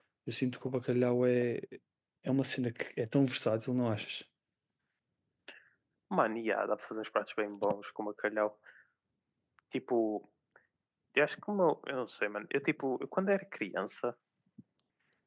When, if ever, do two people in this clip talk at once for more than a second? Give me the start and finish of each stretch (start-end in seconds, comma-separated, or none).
none